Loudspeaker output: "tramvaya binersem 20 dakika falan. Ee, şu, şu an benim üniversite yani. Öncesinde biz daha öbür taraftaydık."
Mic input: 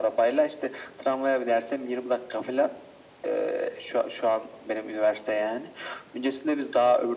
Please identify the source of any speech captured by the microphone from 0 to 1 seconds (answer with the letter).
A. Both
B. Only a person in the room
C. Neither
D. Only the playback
D